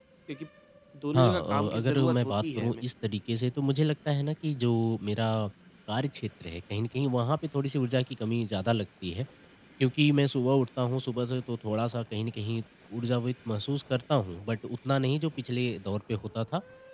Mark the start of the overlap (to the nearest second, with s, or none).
1 s